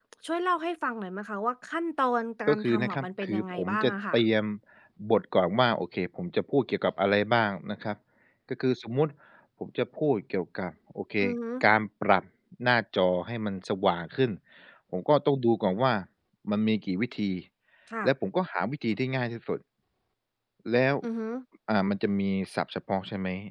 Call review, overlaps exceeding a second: present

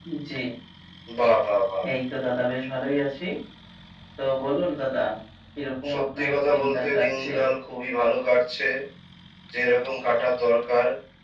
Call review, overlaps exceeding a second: present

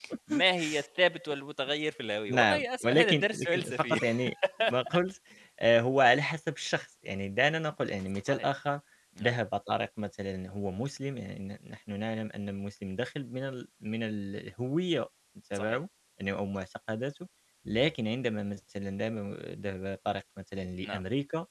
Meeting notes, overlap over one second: present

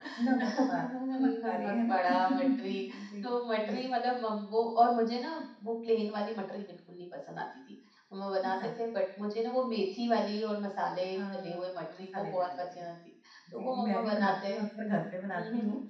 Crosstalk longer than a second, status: present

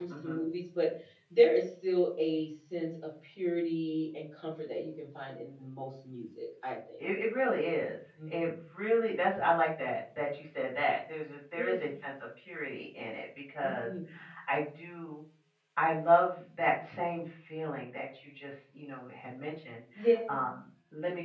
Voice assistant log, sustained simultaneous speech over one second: none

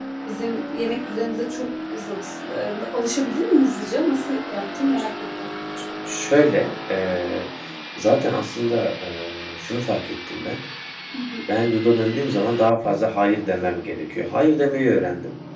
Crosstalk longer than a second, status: none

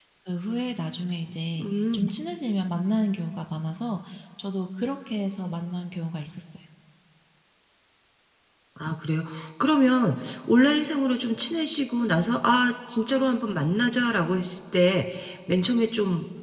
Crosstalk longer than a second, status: none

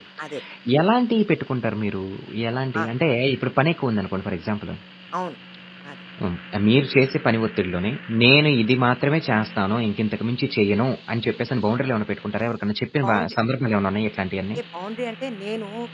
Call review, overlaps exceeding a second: none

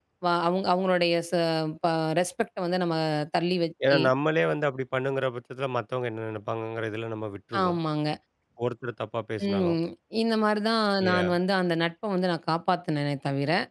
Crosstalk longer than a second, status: none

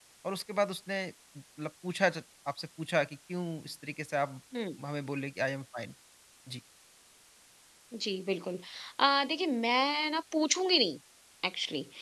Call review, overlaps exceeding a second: none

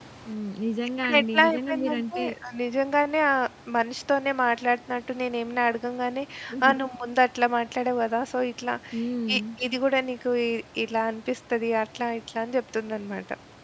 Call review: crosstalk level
present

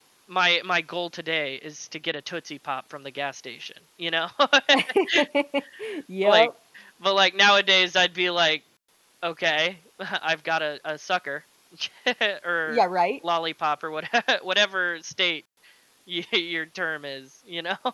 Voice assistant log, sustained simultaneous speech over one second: none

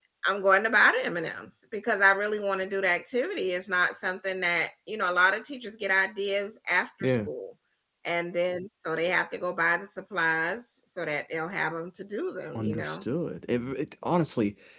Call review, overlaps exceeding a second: none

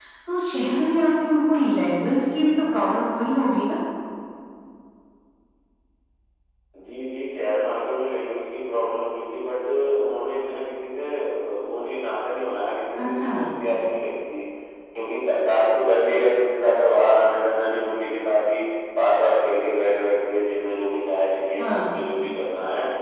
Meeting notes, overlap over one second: none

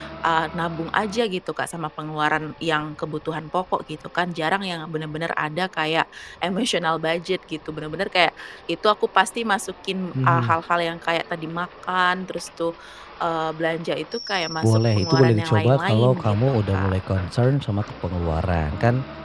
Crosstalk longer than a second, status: present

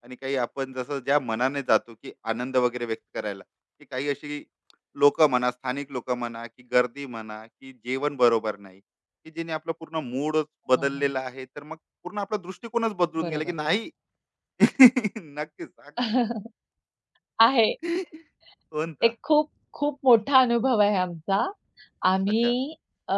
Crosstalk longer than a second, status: none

